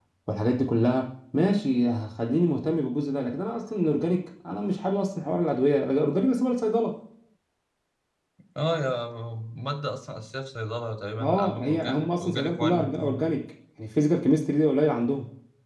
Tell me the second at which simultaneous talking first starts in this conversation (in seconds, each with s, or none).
11.2 s